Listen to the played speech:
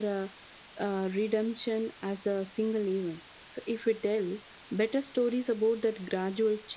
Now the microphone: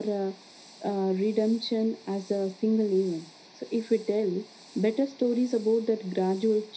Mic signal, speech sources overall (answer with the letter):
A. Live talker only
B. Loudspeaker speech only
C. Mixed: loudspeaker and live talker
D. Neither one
B